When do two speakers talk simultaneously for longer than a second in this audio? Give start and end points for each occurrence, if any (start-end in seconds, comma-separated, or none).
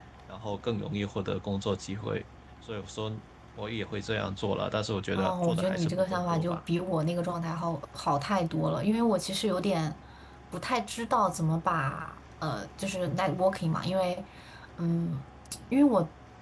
5.2-6.6